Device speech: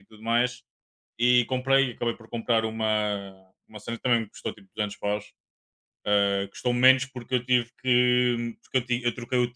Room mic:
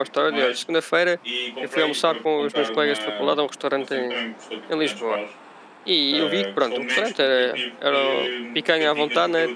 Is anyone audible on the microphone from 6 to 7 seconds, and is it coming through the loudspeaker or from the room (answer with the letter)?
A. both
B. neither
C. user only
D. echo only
A